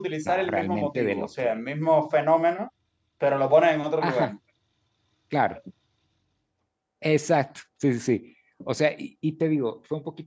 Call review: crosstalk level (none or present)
present